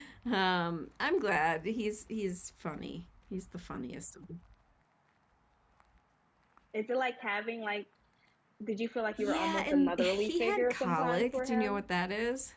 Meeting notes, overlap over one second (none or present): present